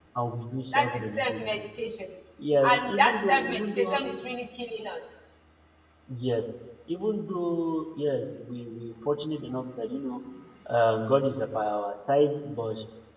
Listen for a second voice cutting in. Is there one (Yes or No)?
Yes